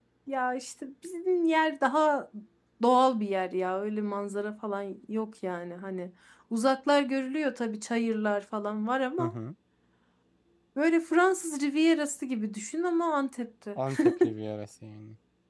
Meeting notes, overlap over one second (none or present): none